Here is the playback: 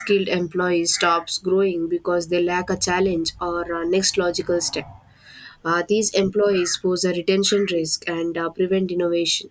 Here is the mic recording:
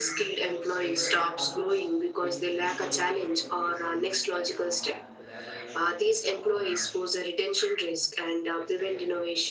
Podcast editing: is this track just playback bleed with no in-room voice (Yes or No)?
No